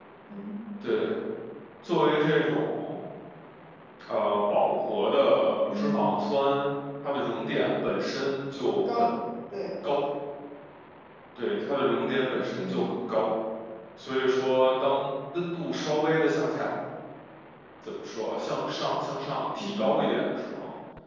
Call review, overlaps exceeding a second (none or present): none